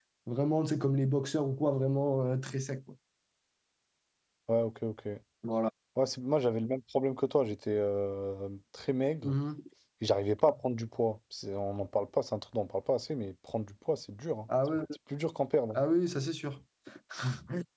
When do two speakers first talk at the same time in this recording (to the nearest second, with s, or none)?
none